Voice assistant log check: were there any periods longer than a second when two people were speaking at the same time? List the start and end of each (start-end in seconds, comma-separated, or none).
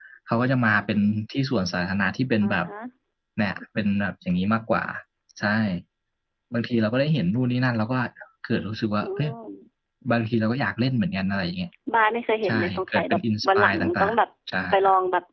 12.5-14.2